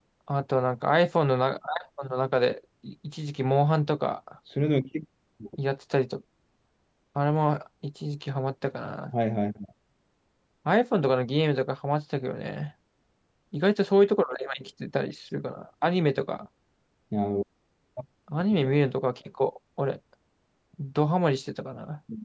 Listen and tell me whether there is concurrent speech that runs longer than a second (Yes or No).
No